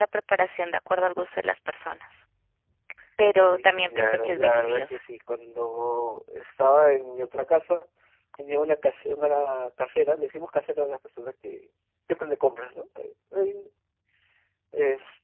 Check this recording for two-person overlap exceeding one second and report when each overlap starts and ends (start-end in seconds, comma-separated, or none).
3.5-5.0